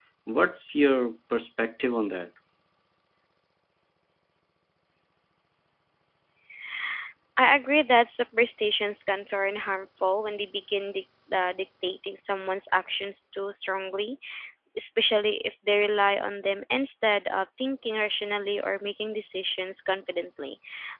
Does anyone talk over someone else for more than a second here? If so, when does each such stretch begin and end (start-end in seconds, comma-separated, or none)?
none